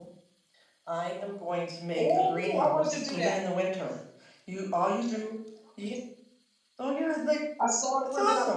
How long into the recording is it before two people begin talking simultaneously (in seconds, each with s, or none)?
2.0 s